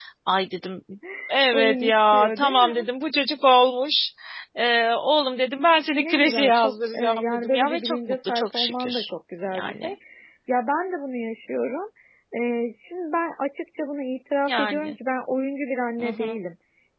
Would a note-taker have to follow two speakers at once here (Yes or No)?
Yes